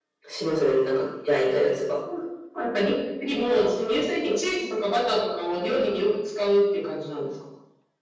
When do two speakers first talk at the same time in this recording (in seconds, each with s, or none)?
none